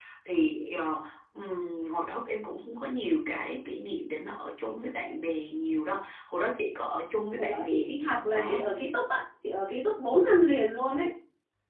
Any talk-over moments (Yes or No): Yes